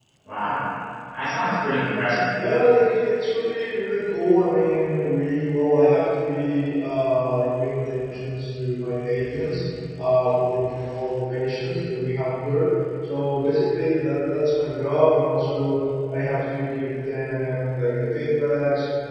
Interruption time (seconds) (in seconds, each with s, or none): none